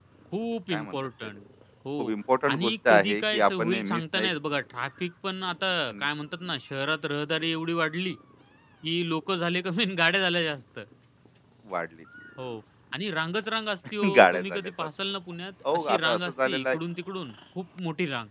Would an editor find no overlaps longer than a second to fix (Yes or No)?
No